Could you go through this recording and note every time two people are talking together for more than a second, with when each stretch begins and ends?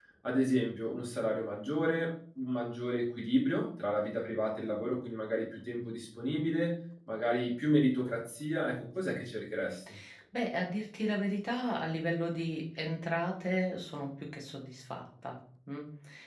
none

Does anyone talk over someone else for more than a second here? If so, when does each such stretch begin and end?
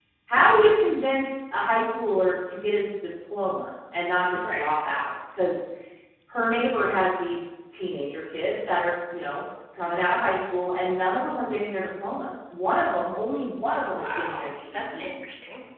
13.9-15.1

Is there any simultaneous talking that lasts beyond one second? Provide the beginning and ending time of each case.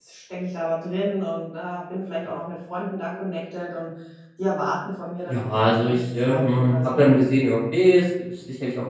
5.3-7.0

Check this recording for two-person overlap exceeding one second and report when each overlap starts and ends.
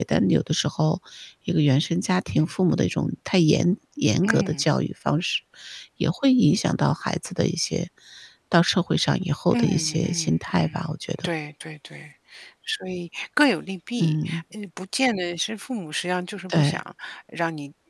9.5-10.8

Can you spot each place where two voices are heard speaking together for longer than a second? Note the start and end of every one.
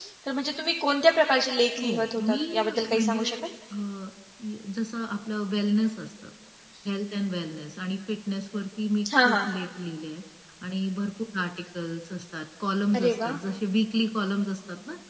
1.8-3.4

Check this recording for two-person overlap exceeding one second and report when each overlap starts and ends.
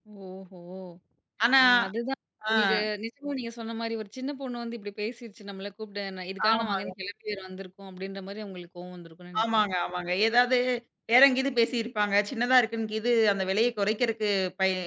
none

